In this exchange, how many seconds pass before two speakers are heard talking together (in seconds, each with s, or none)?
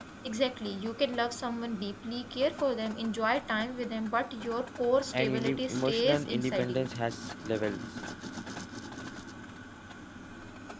5.1 s